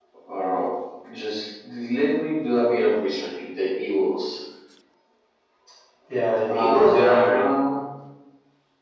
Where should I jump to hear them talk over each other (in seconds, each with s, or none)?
6.5 s